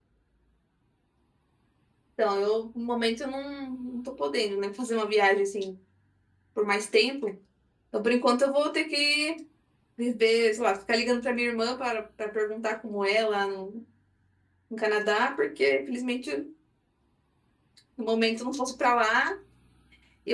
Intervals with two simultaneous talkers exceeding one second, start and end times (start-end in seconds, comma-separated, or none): none